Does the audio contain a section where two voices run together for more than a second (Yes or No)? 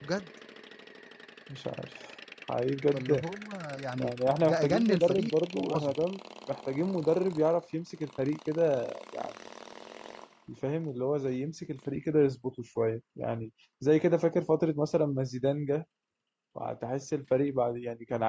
Yes